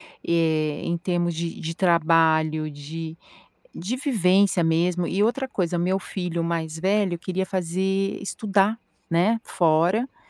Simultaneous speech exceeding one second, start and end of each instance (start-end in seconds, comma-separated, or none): none